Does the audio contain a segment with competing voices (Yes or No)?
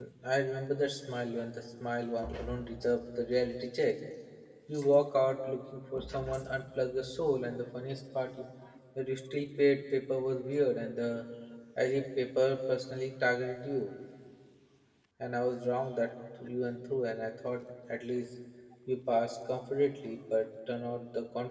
No